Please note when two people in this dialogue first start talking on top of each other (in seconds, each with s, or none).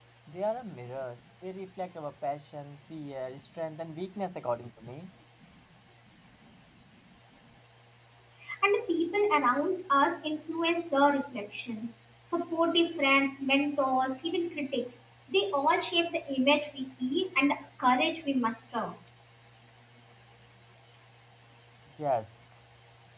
none